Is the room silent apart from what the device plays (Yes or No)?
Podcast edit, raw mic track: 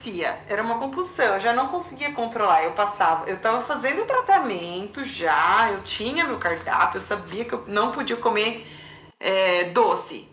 Yes